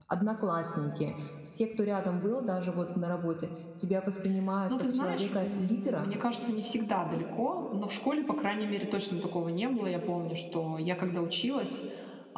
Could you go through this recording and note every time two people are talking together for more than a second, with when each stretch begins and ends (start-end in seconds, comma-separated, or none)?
4.7-6.1